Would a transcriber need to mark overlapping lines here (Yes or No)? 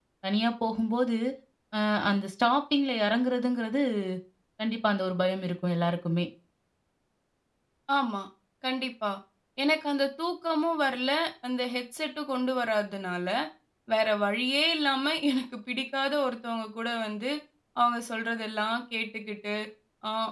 No